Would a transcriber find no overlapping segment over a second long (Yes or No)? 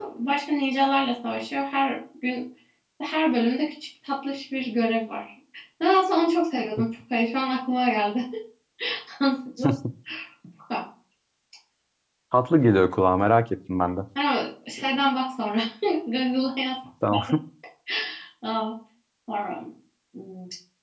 Yes